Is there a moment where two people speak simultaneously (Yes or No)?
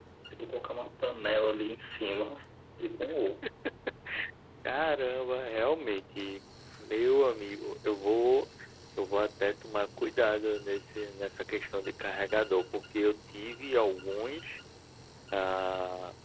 No